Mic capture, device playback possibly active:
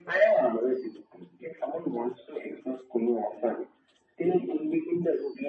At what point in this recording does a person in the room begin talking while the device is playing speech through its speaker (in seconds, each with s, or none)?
none